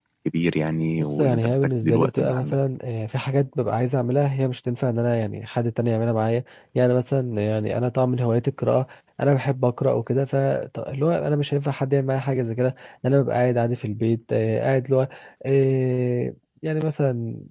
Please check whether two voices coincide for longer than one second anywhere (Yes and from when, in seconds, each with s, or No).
Yes, from 1.0 s